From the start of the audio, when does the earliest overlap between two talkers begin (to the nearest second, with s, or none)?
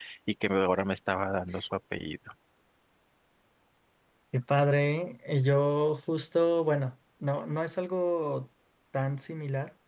none